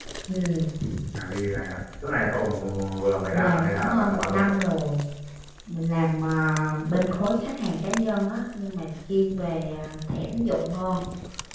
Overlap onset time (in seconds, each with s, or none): 3.3 s